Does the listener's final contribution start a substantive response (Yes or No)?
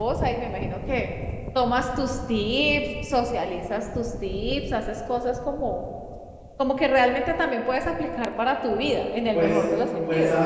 Yes